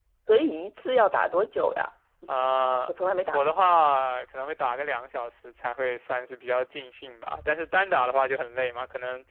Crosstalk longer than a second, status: none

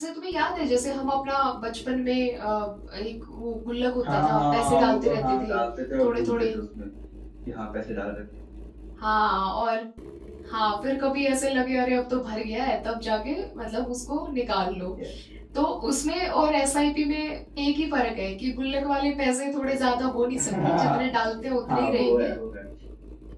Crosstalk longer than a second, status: present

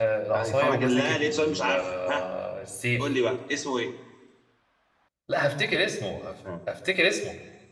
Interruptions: present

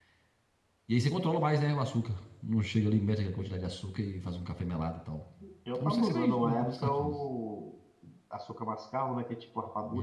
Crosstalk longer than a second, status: present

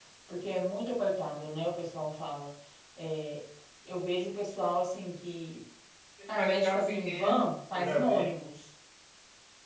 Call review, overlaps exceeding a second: present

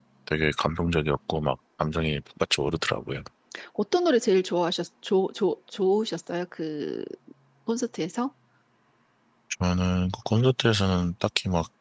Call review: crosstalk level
none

